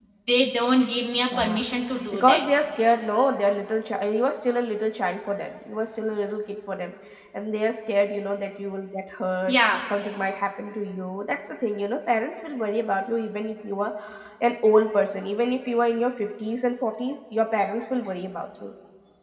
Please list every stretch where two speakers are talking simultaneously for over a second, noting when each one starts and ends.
none

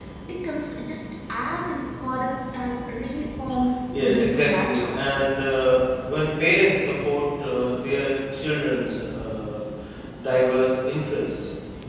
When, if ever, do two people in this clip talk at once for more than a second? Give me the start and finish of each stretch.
3.9-5.2

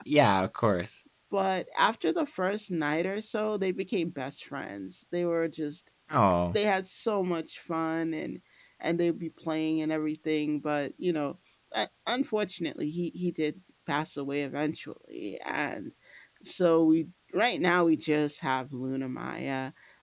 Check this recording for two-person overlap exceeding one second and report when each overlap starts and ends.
none

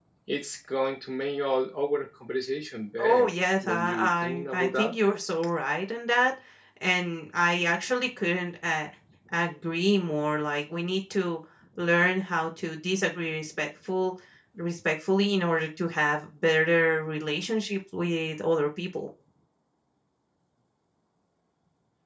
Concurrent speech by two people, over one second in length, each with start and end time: 3.6-4.9

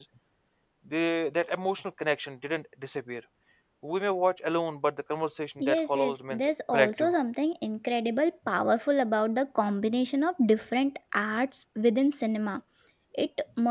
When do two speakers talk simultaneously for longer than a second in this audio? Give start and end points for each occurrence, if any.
5.6-7.1

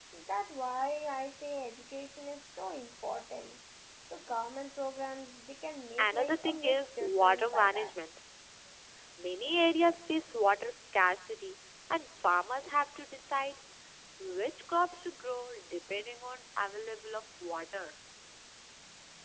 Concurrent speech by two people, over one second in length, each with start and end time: 6.0-7.9

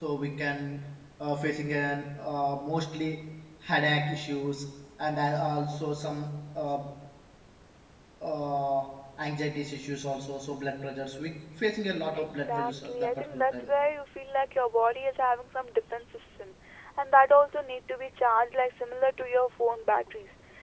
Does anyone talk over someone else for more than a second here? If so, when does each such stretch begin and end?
12.2-13.7

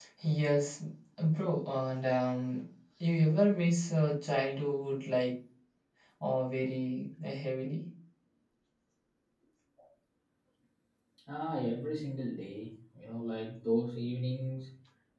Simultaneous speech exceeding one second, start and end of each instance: none

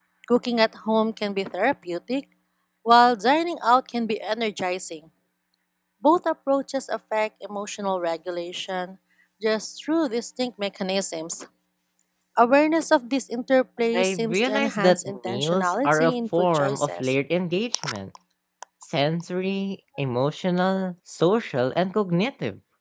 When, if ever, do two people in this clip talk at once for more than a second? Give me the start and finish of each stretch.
13.9-17.1

